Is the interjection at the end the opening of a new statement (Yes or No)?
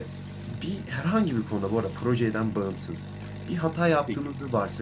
No